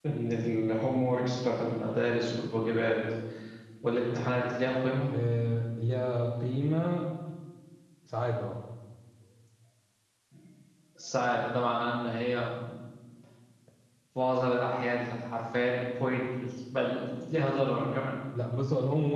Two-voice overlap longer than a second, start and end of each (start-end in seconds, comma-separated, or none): none